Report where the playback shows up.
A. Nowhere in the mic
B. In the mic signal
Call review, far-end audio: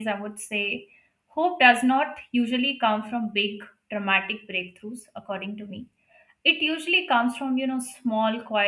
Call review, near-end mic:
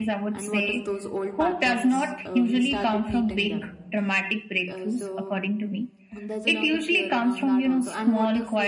B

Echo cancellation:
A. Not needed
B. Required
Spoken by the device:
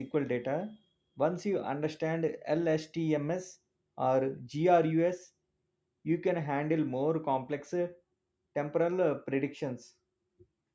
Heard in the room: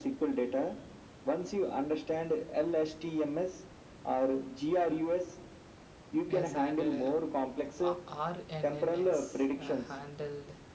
B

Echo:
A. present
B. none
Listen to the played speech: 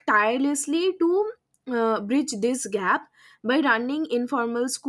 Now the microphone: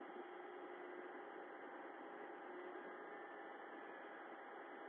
B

